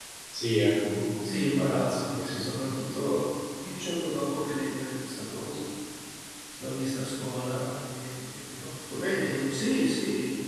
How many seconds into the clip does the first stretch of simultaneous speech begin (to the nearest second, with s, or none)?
1 s